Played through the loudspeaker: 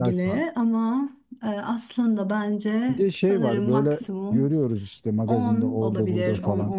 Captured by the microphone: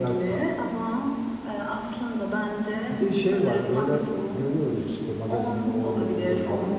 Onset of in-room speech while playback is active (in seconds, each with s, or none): none